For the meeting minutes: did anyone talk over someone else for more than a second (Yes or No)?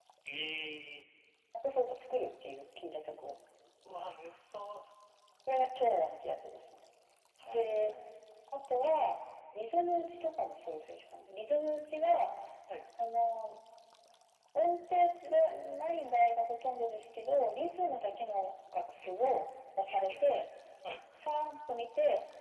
No